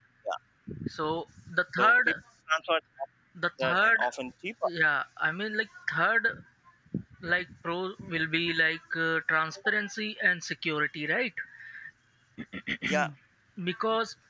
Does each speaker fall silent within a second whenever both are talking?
Yes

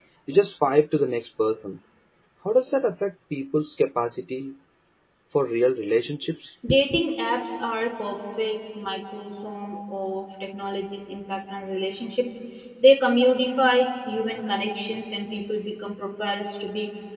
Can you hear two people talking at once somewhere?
No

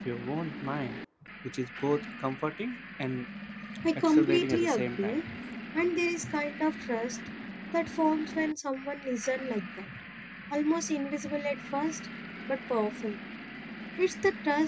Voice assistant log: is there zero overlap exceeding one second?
No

